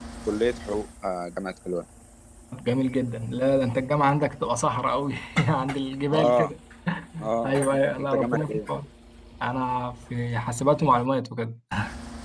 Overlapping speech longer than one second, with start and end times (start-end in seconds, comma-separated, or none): 7.4-8.7